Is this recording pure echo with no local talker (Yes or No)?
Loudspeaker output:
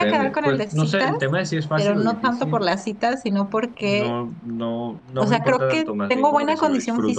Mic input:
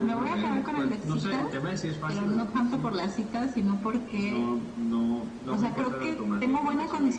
Yes